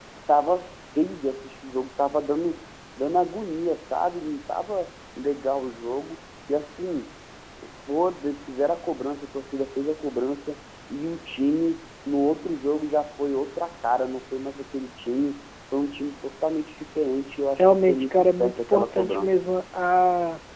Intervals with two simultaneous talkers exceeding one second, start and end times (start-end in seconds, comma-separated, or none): 17.6-19.3